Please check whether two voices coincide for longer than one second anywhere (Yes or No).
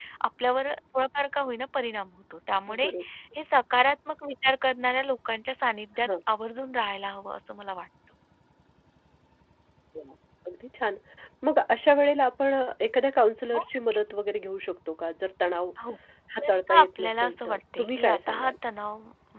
Yes